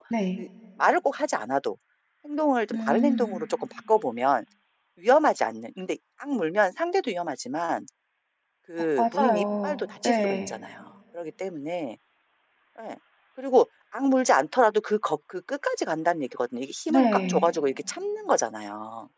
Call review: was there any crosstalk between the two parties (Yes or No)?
Yes